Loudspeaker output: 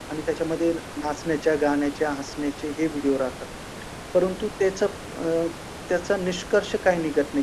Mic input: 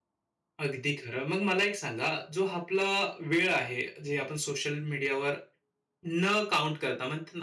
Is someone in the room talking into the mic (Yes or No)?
Yes